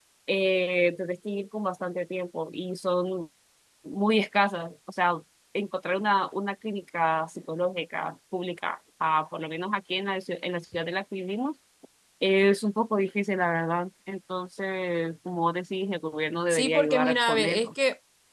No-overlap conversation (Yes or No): No